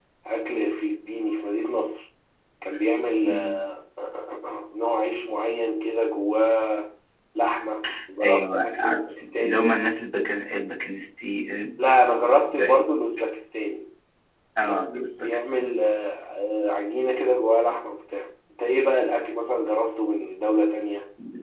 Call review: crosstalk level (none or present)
present